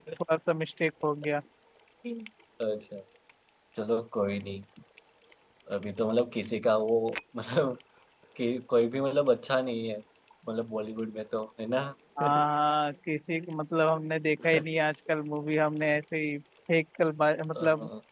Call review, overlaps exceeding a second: none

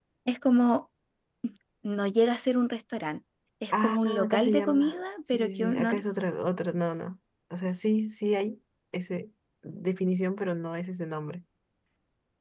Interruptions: present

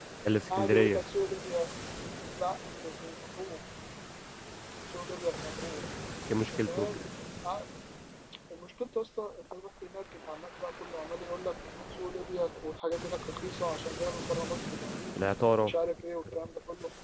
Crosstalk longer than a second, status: none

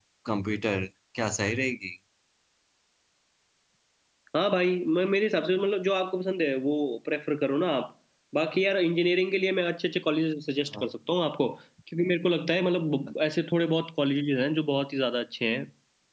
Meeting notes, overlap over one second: none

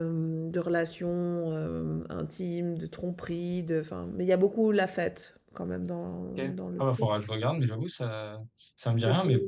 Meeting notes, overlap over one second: none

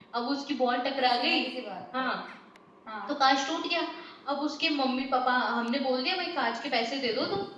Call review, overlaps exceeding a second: none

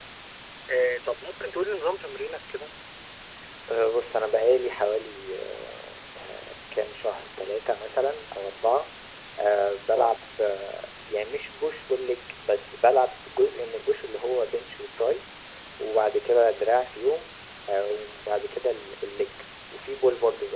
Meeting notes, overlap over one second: none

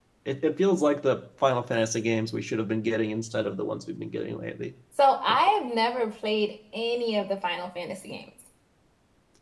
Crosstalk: none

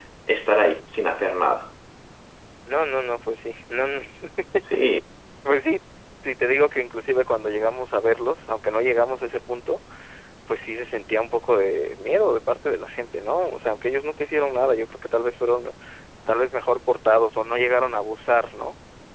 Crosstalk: none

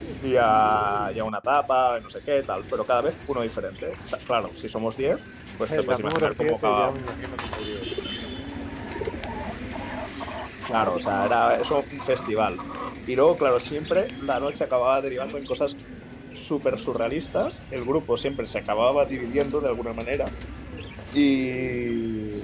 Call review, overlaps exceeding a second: present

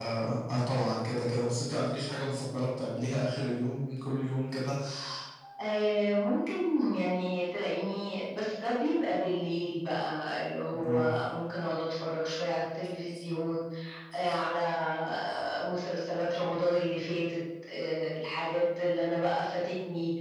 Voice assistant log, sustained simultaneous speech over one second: none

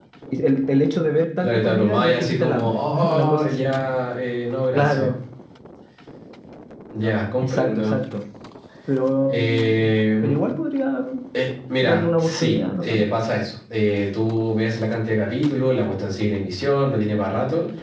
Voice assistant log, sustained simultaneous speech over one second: present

